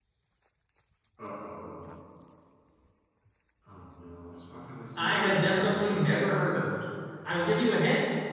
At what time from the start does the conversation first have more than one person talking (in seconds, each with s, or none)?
5.0 s